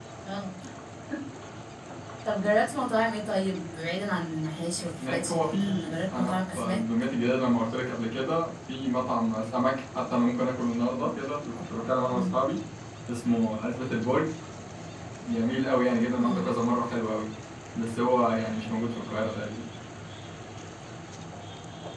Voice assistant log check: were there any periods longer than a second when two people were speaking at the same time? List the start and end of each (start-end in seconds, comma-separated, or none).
4.8-6.8